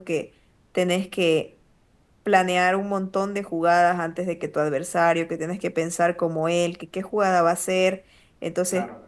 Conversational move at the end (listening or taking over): listening